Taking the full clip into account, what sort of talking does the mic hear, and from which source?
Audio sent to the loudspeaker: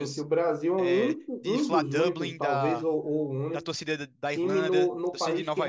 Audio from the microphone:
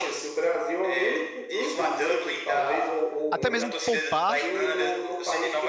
both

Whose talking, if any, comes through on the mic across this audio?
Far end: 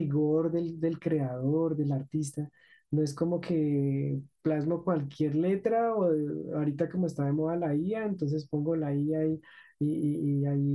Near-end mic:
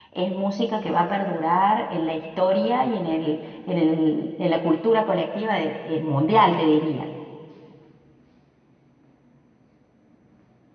user only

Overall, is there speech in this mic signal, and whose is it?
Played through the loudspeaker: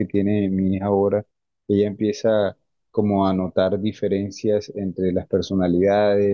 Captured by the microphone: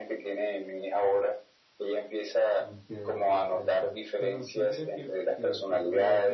both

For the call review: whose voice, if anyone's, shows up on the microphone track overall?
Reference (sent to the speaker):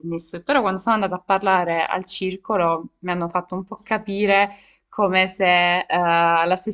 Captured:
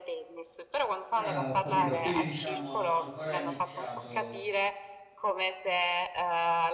both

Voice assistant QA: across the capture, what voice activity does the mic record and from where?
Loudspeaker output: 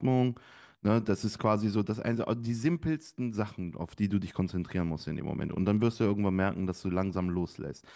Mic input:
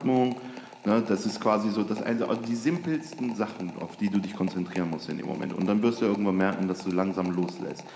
echo only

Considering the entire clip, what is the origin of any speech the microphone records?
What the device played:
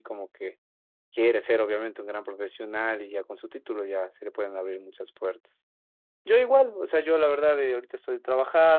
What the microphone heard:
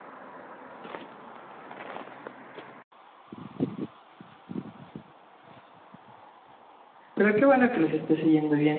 user only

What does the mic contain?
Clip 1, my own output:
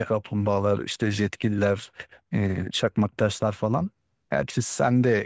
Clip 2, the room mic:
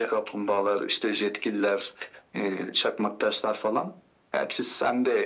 echo only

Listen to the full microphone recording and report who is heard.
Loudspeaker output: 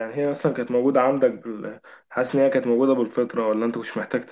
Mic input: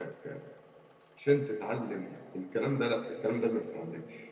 user only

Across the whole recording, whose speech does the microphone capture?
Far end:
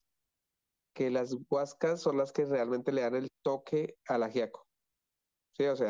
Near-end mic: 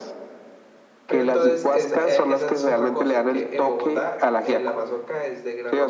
both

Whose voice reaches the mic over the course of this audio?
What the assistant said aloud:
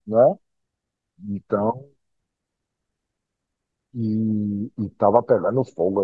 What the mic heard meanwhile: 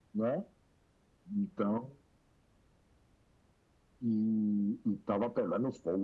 echo only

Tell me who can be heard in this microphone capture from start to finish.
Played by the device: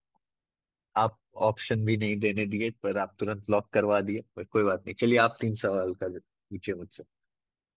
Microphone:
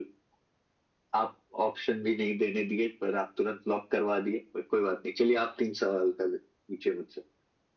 echo only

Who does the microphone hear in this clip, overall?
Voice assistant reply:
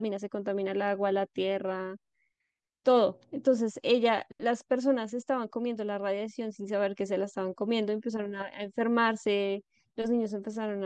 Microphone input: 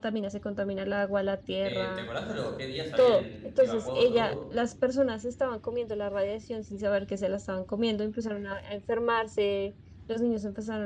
both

